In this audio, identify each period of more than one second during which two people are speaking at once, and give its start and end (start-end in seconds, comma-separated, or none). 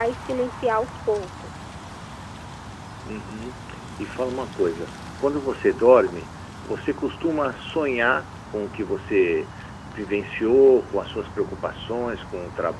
none